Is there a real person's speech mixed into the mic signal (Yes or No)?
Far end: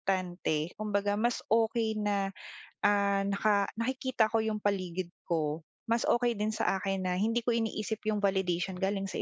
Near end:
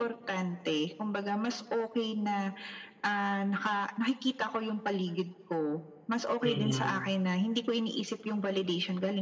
Yes